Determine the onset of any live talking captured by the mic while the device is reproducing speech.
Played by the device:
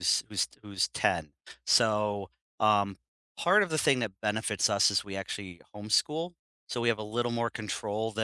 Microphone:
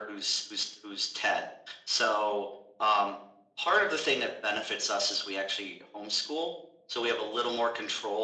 none

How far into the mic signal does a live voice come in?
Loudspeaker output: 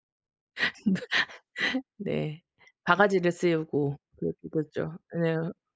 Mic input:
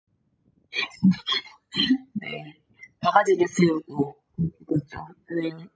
none

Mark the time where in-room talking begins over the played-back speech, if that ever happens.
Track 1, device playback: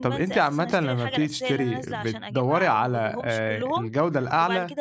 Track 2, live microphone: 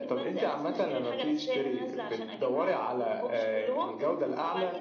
none

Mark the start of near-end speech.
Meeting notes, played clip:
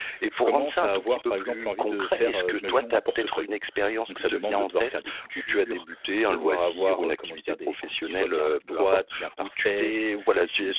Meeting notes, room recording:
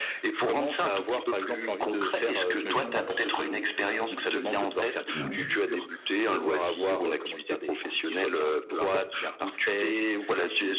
5 s

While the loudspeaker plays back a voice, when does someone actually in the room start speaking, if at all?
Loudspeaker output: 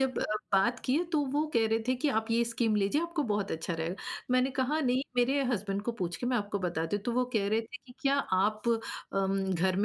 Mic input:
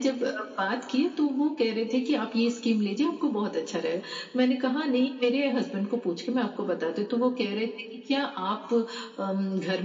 none

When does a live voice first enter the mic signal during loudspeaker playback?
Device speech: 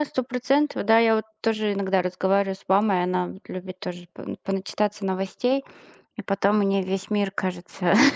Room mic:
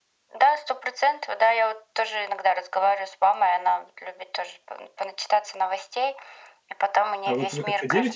7 s

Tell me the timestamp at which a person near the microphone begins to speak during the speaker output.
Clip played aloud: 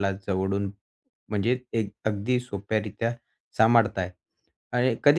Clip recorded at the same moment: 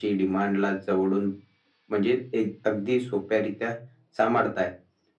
none

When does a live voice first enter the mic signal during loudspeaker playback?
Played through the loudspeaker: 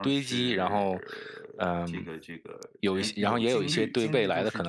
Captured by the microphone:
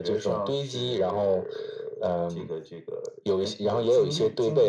none

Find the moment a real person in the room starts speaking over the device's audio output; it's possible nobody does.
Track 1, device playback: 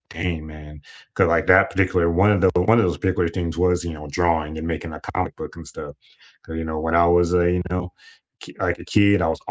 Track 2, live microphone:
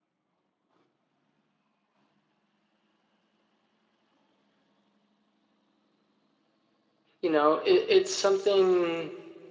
7 s

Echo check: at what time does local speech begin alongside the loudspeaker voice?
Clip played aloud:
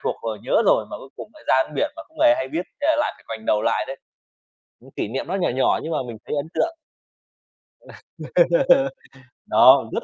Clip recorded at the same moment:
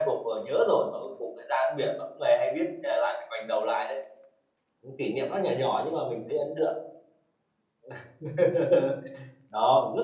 none

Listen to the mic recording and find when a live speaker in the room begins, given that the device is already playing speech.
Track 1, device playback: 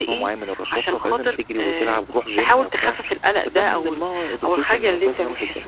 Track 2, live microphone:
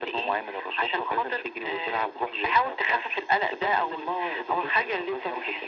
none

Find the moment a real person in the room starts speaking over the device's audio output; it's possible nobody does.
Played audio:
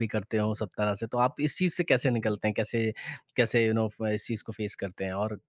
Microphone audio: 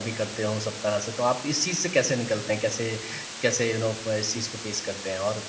none

